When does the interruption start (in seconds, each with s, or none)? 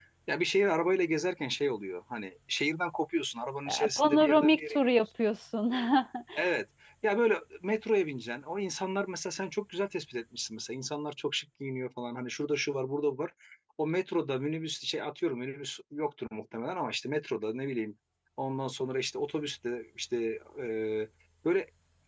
3.7 s